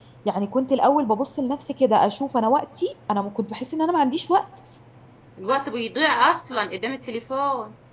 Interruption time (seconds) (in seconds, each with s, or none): none